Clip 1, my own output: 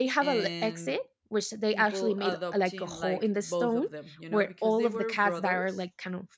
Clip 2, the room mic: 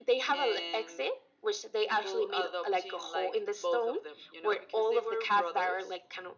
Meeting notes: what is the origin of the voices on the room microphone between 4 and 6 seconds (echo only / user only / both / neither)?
echo only